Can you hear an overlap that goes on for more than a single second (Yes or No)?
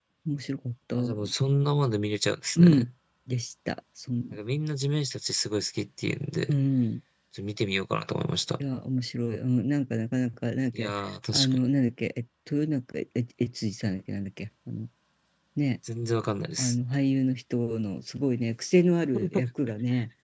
No